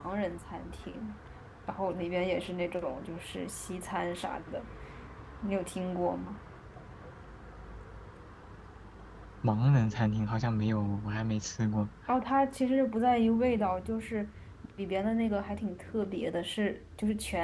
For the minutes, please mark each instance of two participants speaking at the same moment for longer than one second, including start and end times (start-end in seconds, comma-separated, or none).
none